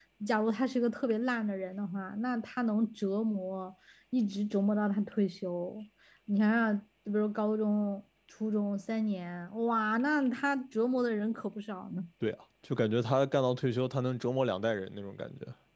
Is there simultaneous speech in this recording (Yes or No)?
No